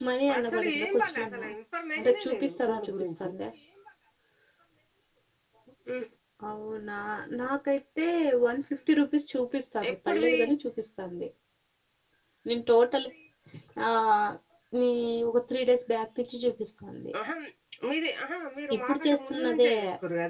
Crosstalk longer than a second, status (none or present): present